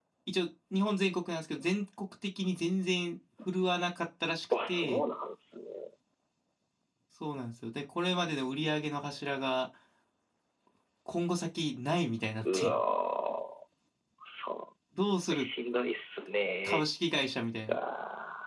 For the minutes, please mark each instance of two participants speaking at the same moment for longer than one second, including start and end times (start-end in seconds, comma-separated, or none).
none